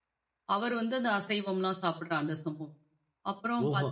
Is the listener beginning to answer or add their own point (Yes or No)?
No